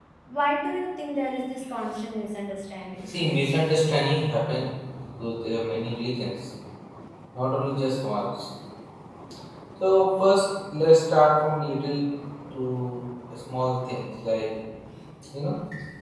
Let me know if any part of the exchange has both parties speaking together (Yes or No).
No